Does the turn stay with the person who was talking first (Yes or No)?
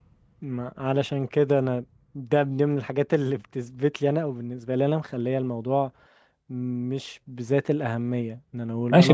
No